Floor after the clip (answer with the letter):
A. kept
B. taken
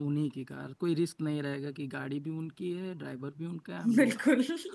A